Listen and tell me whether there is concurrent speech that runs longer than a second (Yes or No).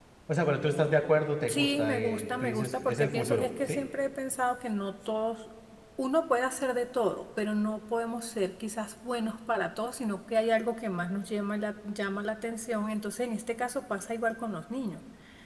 Yes